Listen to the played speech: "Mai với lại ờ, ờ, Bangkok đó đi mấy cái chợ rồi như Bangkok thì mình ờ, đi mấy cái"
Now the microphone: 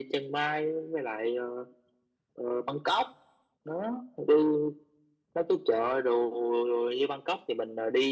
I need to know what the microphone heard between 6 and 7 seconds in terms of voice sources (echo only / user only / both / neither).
echo only